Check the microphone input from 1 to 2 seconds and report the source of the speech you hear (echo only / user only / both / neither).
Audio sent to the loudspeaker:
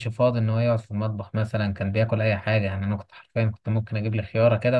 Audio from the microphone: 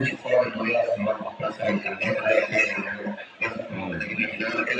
echo only